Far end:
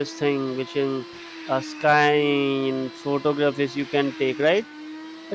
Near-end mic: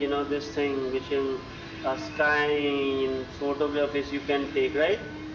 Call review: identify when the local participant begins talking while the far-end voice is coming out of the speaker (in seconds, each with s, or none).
none